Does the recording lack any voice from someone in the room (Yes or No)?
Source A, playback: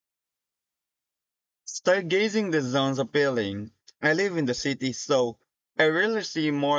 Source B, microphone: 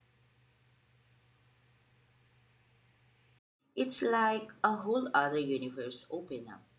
No